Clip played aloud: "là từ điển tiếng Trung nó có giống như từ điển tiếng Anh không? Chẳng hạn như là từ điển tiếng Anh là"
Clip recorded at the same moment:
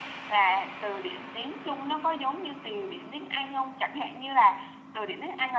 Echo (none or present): present